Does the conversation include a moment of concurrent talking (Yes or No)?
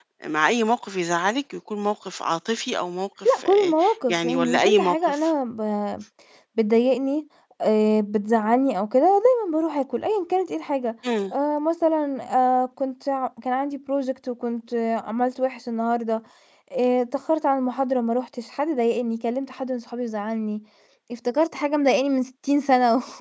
Yes